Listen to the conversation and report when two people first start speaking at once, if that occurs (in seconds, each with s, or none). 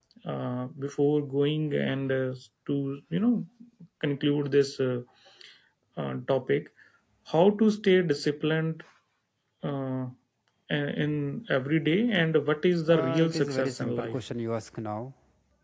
12.9 s